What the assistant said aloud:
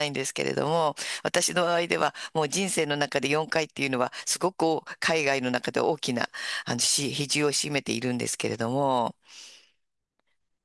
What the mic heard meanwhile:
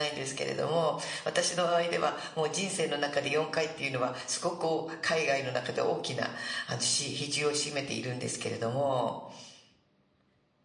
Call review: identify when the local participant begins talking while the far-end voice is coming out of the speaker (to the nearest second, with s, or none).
none